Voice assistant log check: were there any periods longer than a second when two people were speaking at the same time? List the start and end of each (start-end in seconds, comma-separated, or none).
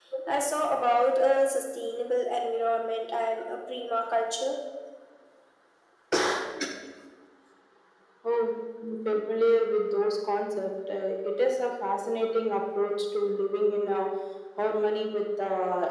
none